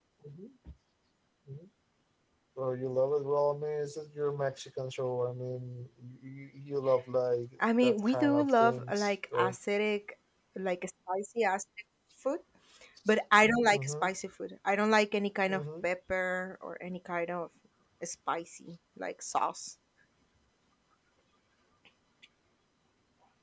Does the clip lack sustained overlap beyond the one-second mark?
No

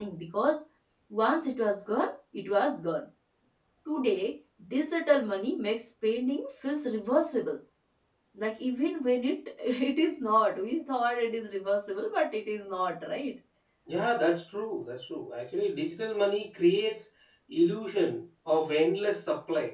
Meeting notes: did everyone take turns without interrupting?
Yes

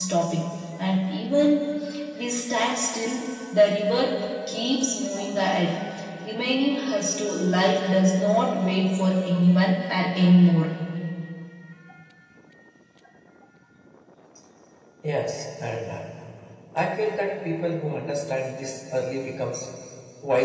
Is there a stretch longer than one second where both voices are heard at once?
No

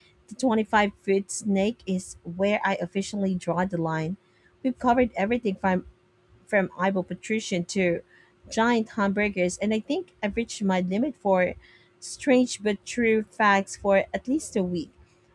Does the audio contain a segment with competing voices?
No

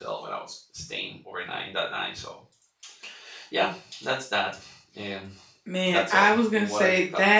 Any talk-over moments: Yes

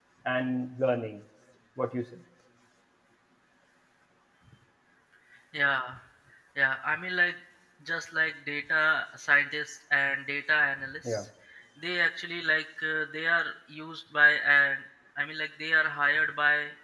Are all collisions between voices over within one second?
Yes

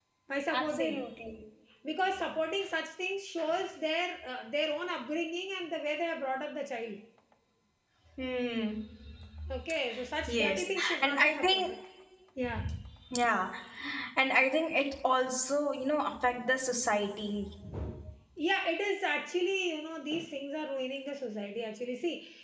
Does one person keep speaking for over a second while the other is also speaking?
Yes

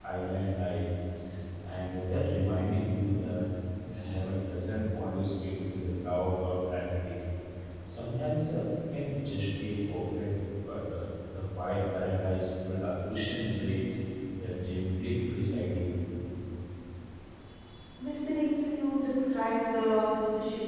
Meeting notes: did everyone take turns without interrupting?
Yes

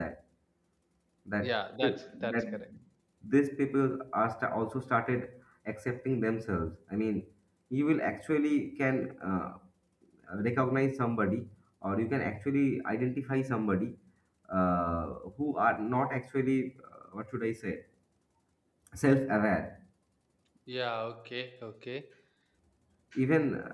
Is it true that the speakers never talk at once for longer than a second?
No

